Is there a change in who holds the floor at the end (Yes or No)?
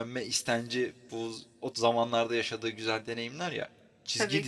No